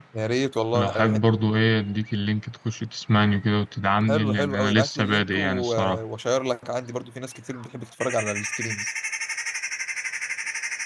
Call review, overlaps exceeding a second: present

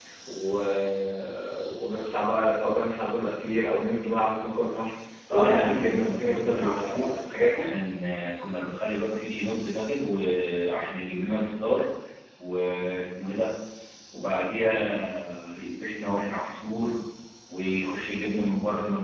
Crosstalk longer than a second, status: present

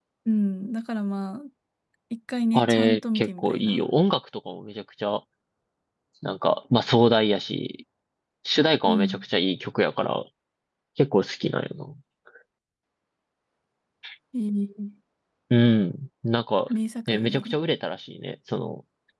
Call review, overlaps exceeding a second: present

